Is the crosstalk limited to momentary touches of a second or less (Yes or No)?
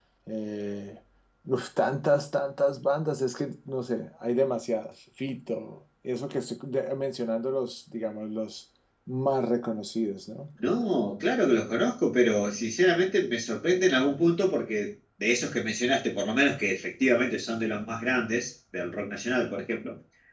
Yes